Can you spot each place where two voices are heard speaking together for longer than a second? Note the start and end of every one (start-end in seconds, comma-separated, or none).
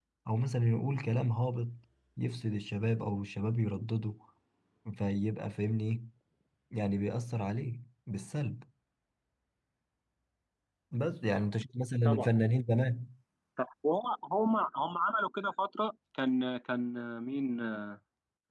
none